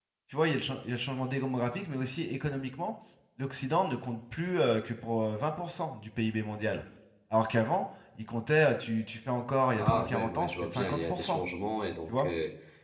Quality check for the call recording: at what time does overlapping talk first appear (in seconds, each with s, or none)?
9.8 s